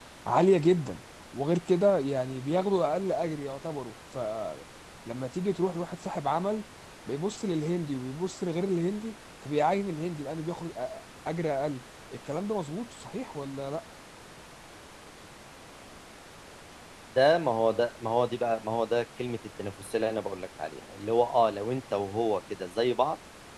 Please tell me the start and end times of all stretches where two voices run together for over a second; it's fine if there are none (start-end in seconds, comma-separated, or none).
none